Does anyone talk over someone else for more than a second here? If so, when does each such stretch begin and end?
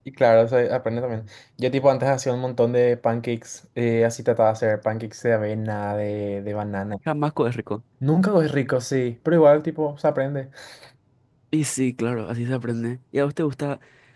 none

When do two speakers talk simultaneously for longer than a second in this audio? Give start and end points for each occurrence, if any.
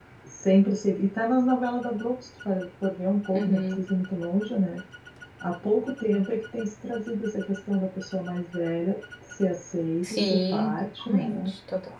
10.0-11.5

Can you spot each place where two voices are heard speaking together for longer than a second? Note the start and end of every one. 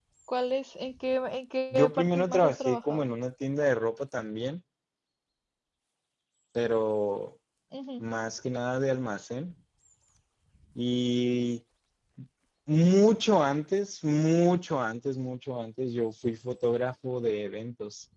1.7-3.1

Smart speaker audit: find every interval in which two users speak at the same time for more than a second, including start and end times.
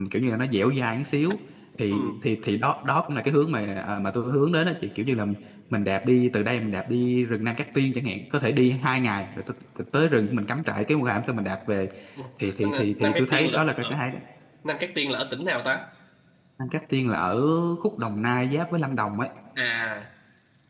12.6-14.0

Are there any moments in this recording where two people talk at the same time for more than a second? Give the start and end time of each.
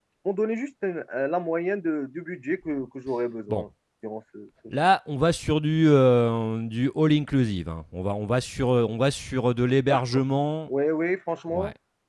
none

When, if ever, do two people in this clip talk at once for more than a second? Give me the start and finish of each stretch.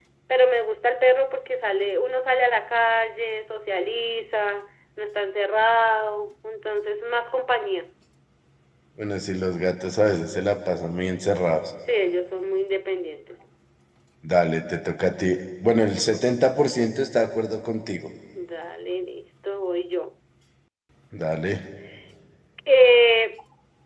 none

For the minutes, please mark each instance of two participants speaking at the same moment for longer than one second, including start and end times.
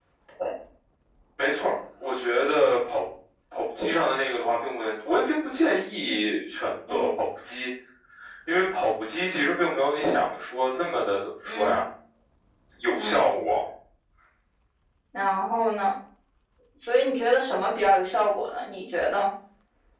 none

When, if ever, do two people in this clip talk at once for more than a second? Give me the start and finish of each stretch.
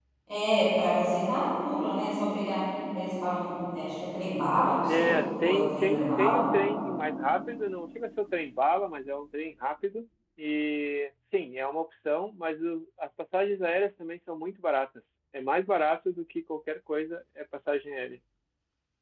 4.8-6.4

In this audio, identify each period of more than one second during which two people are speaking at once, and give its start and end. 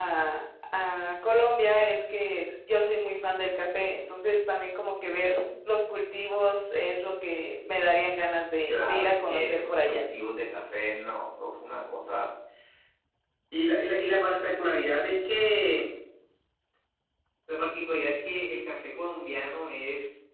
8.6-10.0

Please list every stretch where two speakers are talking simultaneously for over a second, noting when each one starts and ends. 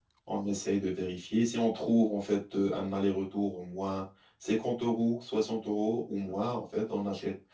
none

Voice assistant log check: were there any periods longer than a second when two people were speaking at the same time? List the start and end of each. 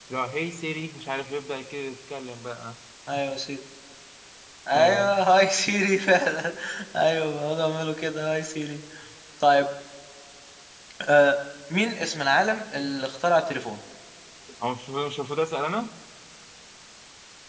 none

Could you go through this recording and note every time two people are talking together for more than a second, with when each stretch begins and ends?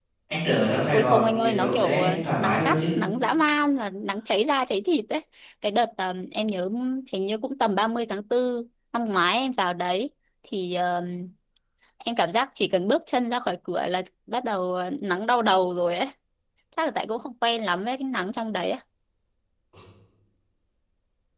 0.9-2.8

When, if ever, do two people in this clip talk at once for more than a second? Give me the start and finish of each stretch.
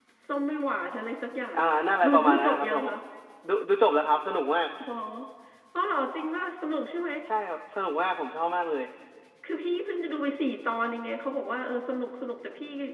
1.5-2.9

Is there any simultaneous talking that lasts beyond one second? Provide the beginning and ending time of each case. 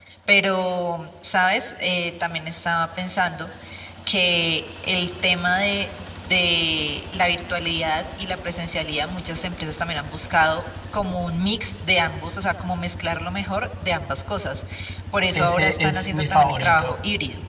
15.3-17.0

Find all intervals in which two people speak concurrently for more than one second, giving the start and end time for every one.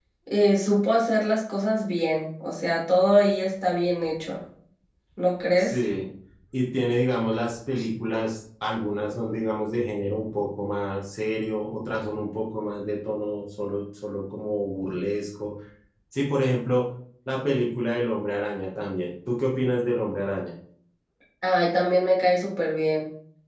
none

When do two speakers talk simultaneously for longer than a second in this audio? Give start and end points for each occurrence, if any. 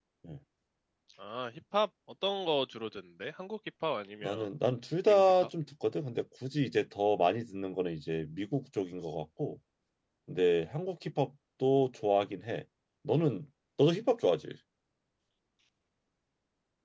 none

